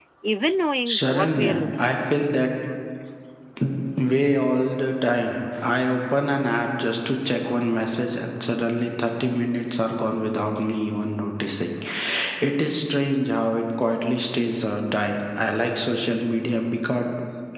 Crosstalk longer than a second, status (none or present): present